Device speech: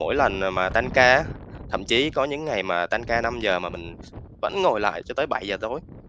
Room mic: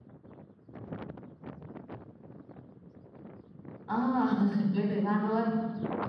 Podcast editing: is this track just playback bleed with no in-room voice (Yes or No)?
No